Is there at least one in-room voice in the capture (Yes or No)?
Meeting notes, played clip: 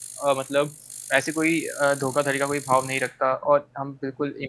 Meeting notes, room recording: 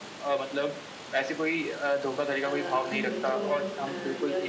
Yes